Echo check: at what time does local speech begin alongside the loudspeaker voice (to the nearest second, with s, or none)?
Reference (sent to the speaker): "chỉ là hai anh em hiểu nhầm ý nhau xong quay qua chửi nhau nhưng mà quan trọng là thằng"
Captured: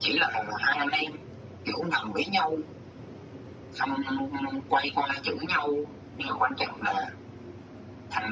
none